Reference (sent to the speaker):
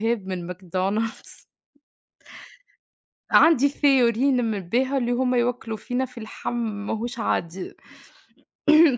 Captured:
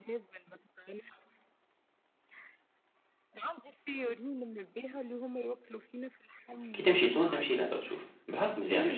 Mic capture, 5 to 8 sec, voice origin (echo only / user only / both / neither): both